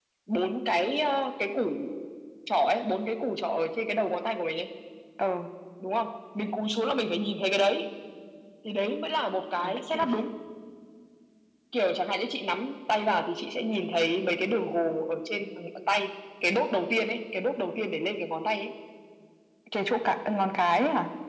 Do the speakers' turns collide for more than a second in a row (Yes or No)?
No